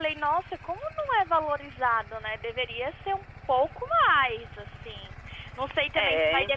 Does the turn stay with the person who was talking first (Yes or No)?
Yes